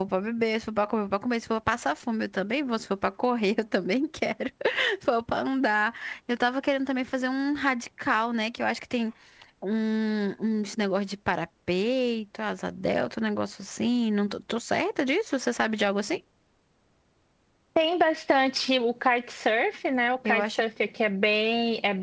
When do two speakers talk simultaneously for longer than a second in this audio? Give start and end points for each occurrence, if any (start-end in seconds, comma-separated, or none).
none